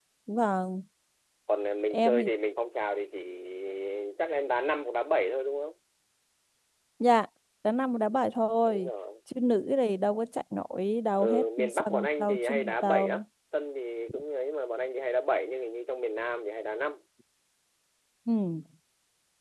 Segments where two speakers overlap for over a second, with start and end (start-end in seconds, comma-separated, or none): 11.2-13.2